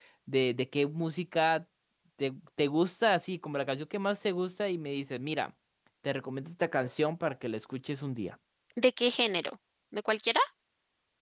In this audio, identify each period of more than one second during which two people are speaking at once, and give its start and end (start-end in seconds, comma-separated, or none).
none